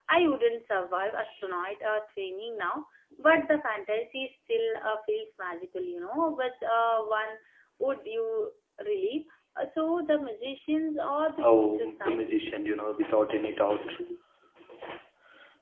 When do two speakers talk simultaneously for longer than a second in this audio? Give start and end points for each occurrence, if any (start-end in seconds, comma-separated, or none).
11.4-12.6